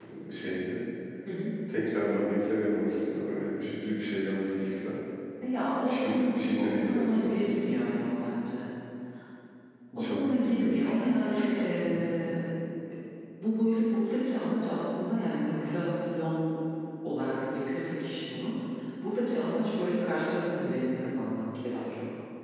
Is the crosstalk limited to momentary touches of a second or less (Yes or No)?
No